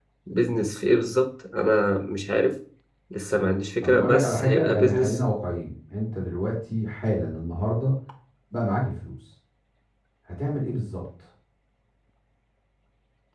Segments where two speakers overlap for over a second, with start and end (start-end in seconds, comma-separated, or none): 3.8-5.2